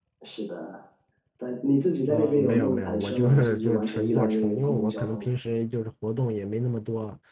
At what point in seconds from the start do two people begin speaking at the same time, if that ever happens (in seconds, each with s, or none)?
2.1 s